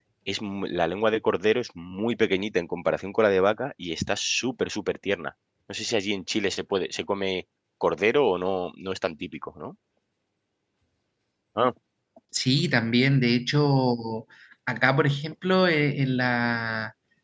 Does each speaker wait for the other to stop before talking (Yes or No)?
Yes